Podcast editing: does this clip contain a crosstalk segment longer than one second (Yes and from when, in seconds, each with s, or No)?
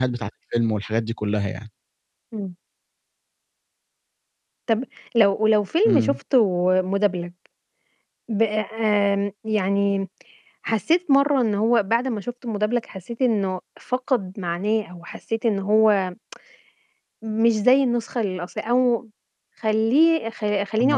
No